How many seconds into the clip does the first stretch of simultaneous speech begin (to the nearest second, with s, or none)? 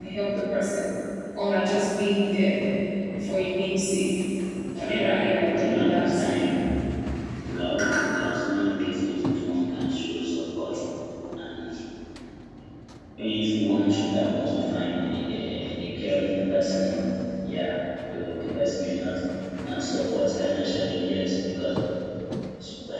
5 s